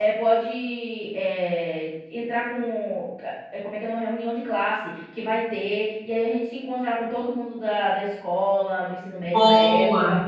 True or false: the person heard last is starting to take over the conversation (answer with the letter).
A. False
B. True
A